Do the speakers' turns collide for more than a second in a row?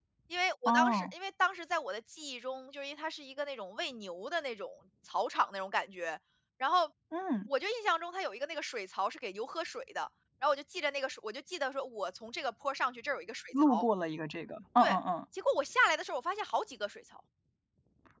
No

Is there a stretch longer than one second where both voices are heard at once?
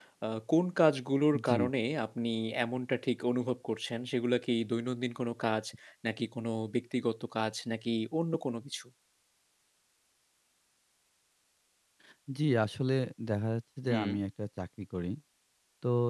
No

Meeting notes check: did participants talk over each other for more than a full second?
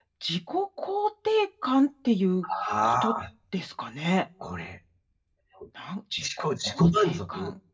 Yes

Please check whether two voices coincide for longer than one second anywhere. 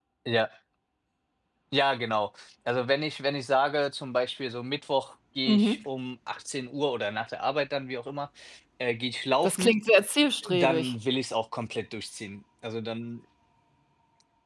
No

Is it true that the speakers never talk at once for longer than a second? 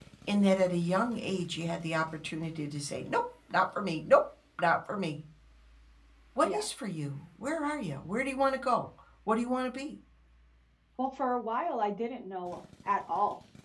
Yes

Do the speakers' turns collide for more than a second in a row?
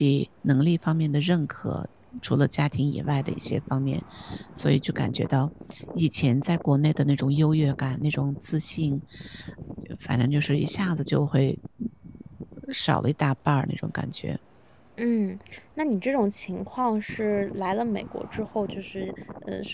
No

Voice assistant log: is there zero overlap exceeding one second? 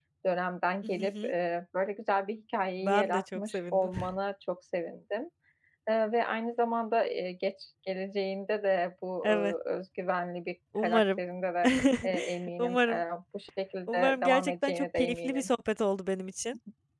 No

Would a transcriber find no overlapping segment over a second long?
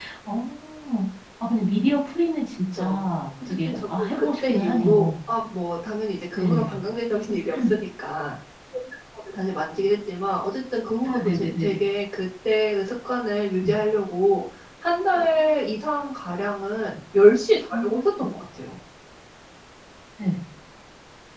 No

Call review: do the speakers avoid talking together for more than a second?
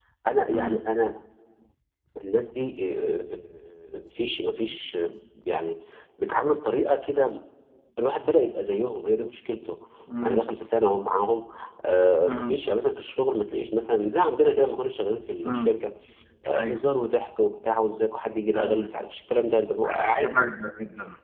Yes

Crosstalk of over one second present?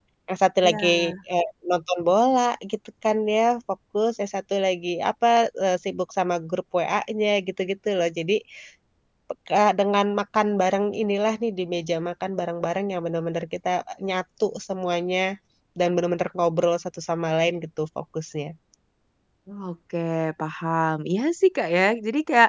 No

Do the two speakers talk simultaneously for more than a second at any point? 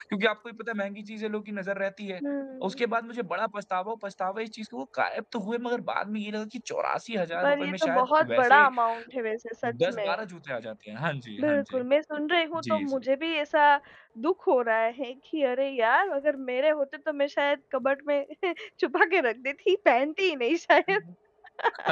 Yes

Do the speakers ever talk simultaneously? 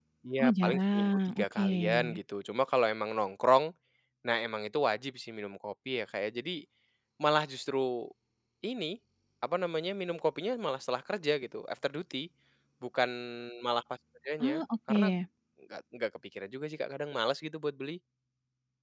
Yes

